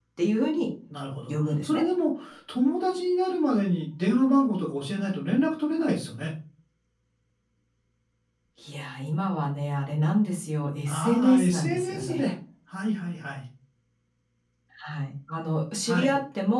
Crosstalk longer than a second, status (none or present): present